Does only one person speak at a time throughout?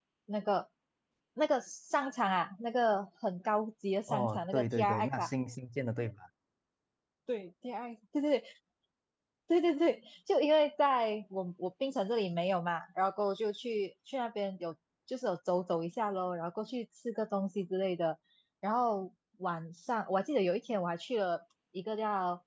No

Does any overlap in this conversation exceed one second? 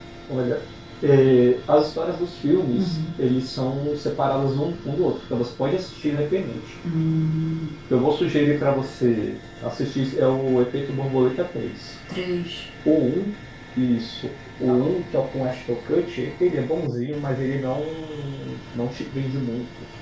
No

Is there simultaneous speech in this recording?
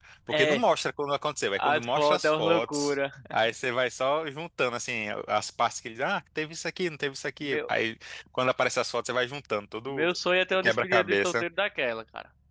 Yes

